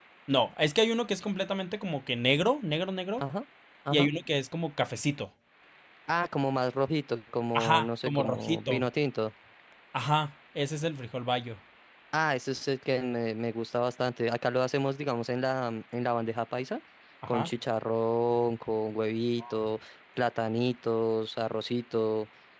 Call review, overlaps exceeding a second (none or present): present